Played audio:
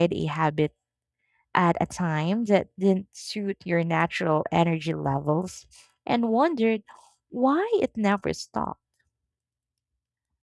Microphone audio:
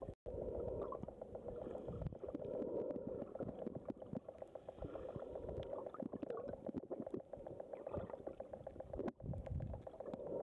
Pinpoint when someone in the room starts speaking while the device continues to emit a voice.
none

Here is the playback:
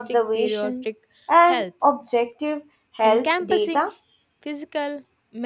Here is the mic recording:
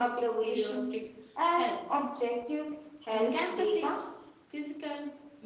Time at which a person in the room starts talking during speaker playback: none

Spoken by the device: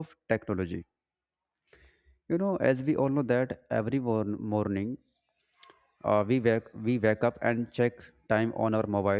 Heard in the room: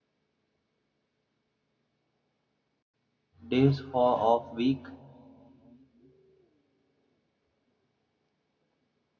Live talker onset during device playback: 3.5 s

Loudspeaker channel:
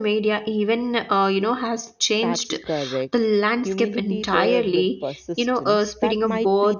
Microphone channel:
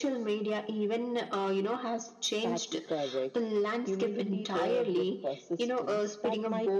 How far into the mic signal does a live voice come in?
none

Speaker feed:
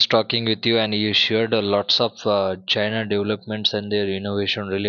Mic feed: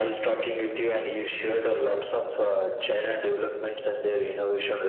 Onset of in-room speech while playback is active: none

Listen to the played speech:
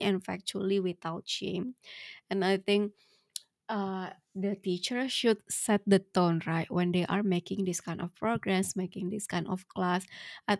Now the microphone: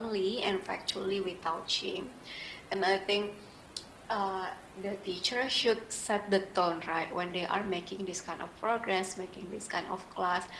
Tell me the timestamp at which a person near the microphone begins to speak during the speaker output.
none

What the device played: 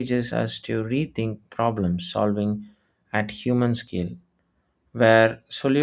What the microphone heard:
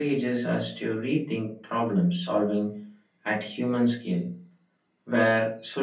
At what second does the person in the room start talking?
none

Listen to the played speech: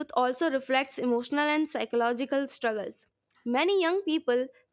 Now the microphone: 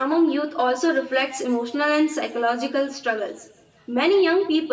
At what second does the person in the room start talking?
none

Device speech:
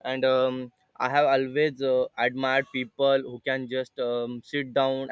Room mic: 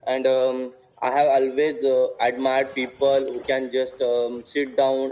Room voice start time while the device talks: none

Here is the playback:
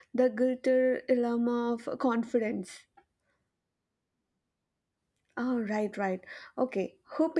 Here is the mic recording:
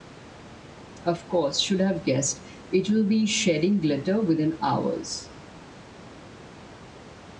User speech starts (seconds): 1.1 s

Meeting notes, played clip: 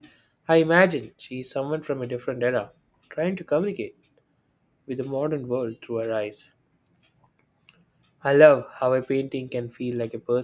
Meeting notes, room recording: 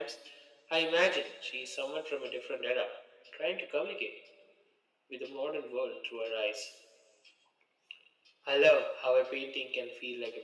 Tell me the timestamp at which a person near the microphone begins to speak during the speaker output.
none

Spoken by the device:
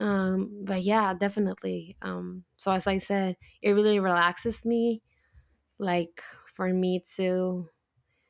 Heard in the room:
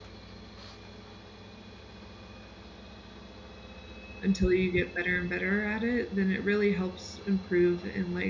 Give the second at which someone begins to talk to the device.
4.2 s

